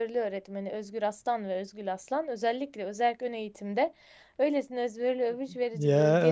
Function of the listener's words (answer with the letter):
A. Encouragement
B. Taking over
B